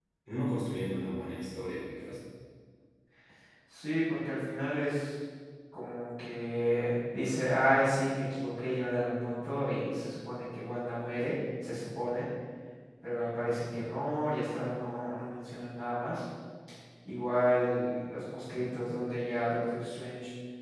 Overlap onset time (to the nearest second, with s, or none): none